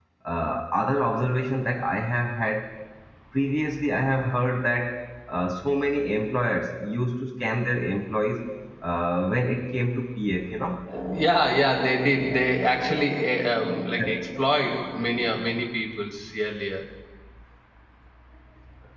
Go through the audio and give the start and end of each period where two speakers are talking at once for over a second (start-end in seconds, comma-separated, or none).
none